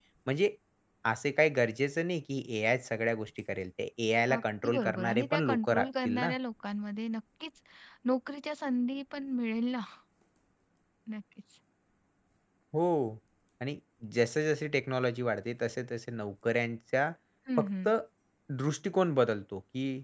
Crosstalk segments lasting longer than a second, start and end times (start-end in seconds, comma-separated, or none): 4.4-6.3